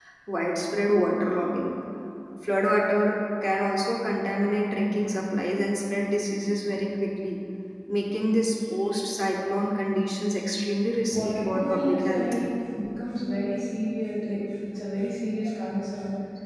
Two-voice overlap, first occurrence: 11.1 s

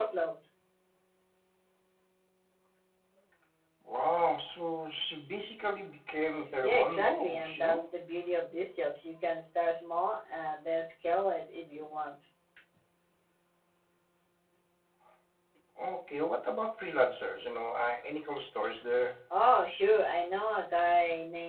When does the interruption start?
6.4 s

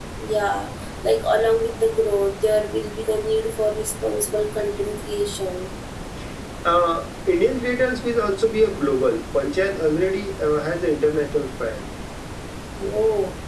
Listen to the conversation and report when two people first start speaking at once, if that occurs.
none

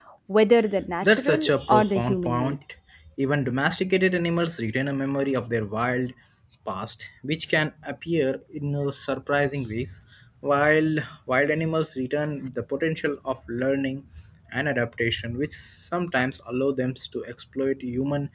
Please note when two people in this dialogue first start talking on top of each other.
1.0 s

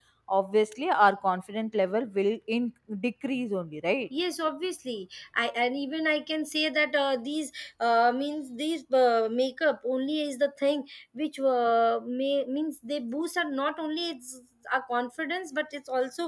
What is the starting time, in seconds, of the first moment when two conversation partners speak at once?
none

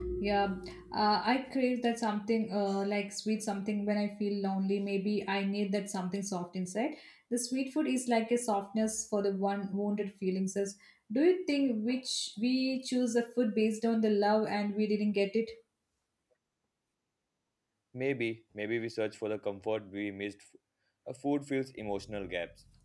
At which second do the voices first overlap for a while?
none

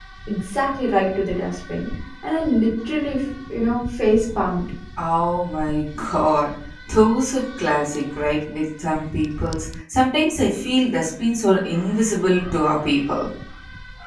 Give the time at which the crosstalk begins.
none

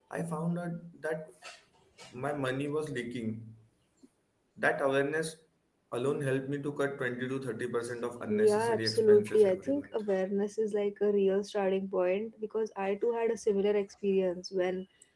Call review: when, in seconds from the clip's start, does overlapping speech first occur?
8.2 s

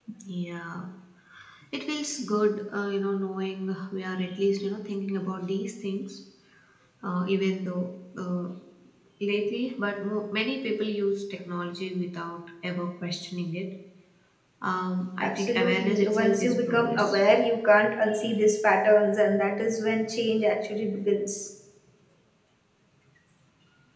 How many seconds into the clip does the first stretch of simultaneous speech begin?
15.2 s

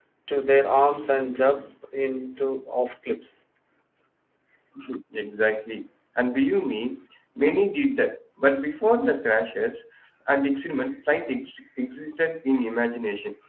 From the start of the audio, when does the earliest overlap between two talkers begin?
none

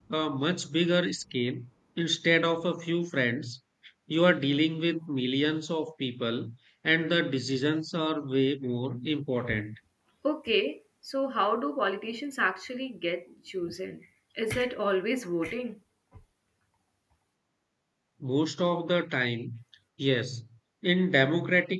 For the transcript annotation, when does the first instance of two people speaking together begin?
none

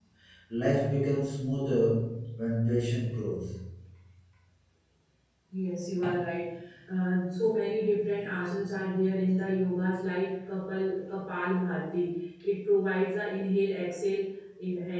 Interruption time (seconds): none

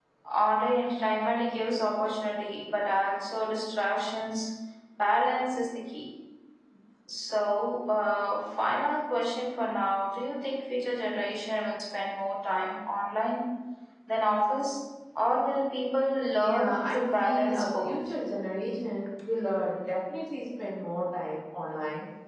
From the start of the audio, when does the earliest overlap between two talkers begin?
16.4 s

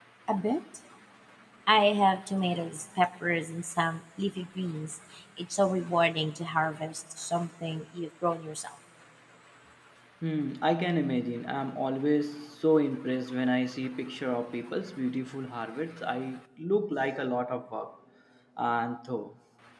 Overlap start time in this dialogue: none

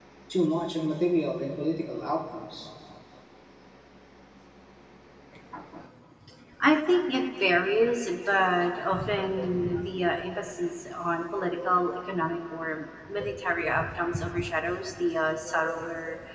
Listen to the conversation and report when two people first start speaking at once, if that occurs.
none

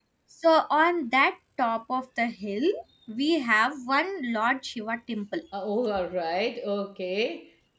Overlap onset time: none

